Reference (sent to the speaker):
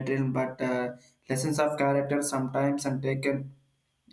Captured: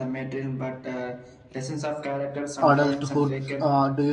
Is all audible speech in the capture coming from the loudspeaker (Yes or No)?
No